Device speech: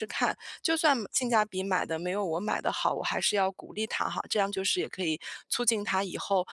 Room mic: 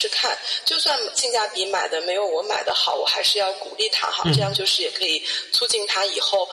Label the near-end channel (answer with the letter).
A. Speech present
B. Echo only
A